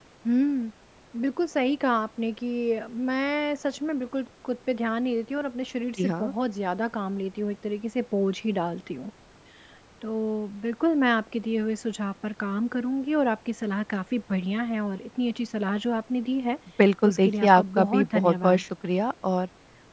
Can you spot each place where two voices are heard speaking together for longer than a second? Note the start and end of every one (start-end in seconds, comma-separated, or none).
17.0-18.6